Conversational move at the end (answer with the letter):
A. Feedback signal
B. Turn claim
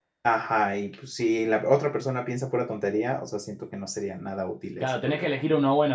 B